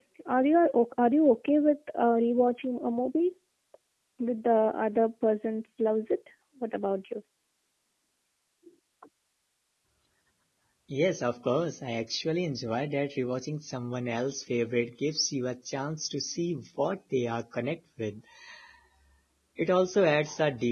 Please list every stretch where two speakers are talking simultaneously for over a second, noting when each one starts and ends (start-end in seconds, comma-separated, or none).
none